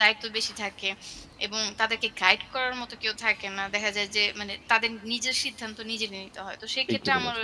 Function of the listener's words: listening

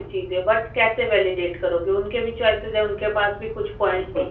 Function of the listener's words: taking over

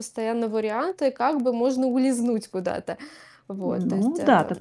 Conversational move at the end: taking over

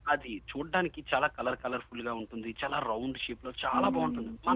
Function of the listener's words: taking over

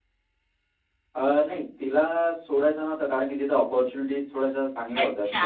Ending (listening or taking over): taking over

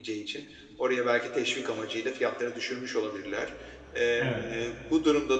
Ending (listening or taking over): listening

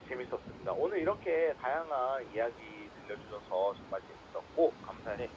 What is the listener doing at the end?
taking over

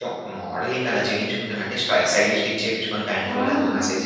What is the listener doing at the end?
listening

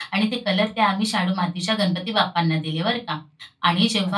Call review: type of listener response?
listening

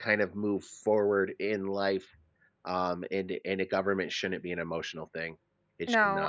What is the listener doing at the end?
taking over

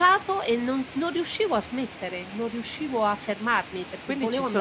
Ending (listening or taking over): taking over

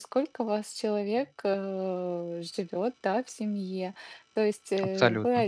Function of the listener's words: listening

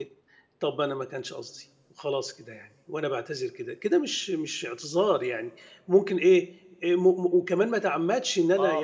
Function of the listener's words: taking over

